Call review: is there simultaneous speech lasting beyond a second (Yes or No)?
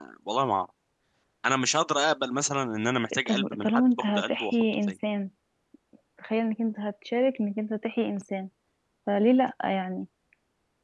Yes